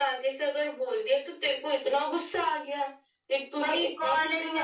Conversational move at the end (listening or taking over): taking over